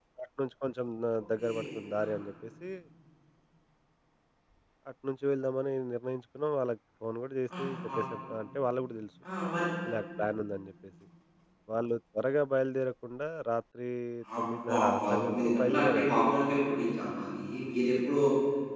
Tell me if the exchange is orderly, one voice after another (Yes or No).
No